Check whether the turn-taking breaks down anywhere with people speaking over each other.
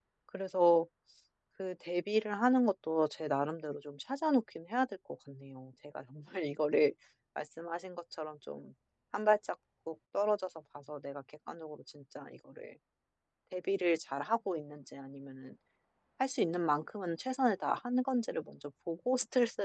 No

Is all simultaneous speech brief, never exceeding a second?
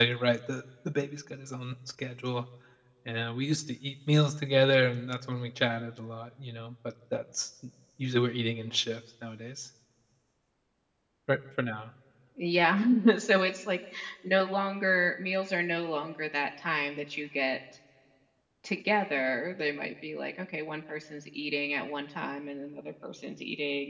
Yes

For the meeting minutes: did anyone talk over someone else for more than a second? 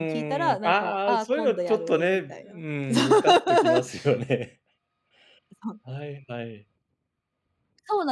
Yes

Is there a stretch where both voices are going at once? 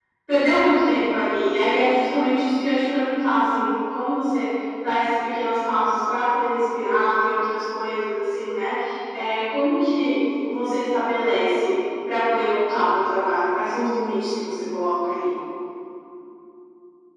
No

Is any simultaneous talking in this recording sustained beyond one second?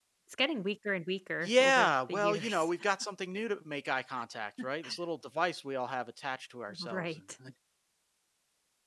Yes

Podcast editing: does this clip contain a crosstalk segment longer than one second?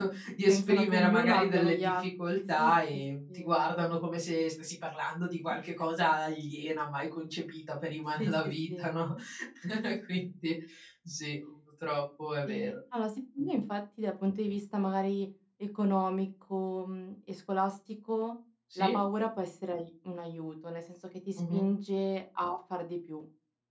Yes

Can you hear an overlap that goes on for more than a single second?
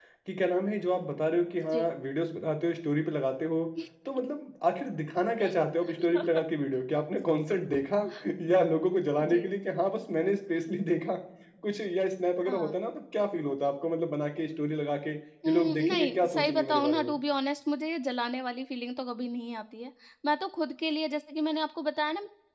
Yes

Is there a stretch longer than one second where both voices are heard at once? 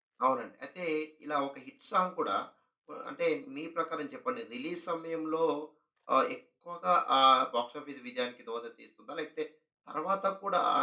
No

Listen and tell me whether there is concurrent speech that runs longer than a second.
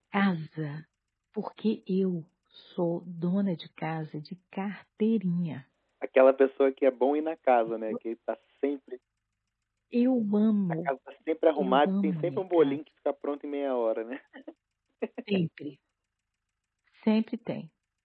Yes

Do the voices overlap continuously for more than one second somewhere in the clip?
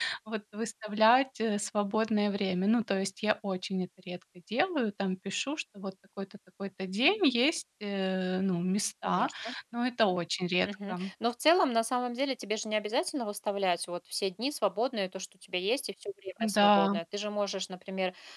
No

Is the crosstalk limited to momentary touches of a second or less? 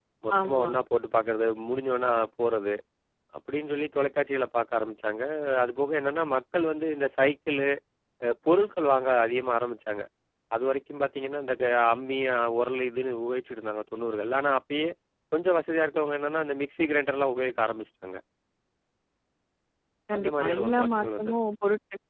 No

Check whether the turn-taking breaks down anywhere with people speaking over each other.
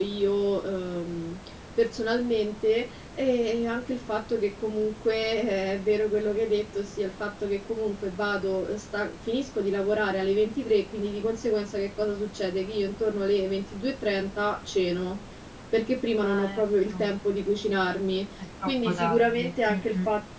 Yes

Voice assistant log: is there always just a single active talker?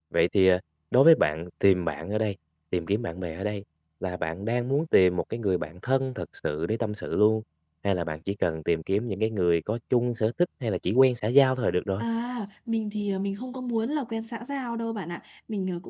Yes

